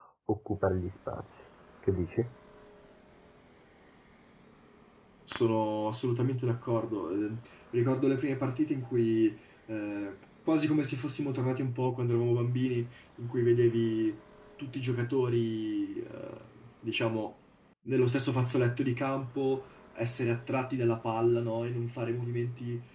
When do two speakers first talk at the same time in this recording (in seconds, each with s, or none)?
none